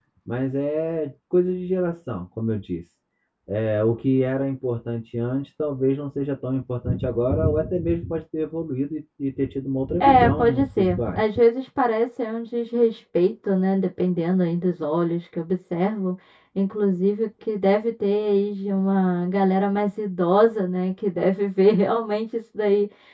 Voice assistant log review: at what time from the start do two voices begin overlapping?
10.0 s

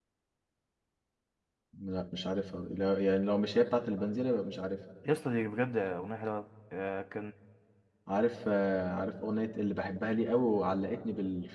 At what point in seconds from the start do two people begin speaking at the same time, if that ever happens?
none

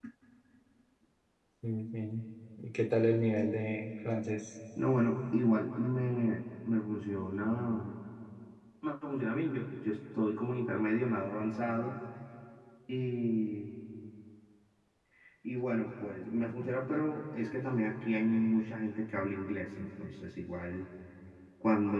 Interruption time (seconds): none

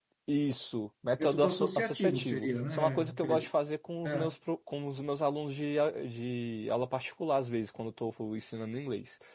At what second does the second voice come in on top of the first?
1.2 s

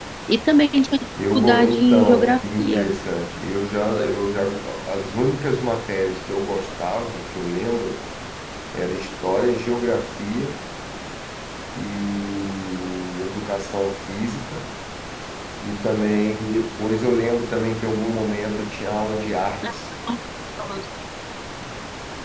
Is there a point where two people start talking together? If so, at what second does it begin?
1.2 s

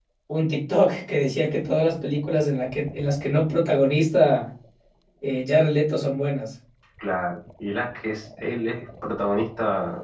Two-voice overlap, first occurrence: none

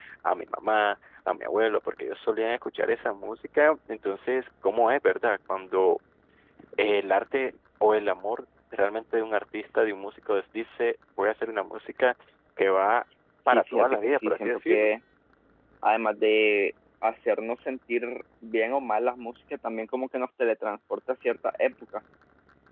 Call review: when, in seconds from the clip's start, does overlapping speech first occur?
13.5 s

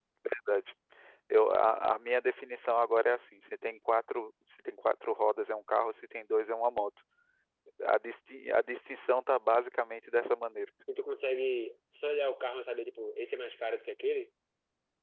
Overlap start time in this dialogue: none

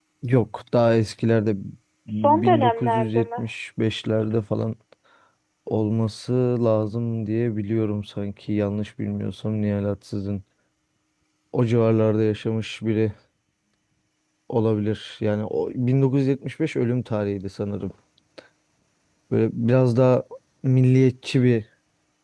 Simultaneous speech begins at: 2.2 s

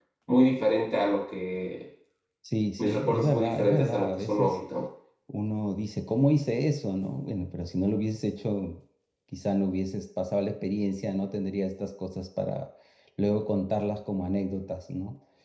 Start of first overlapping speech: 2.8 s

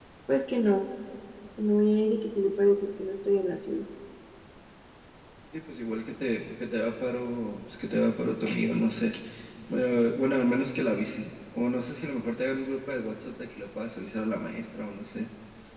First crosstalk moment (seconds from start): none

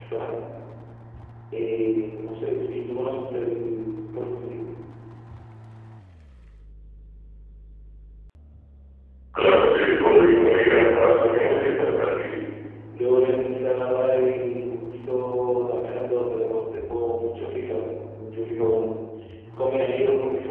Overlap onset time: 10.0 s

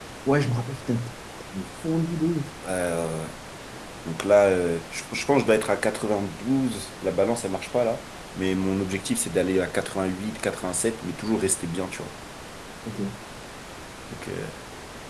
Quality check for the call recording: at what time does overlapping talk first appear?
none

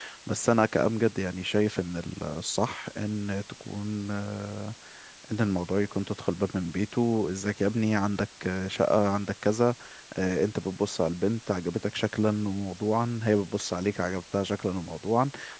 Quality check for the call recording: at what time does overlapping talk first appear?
none

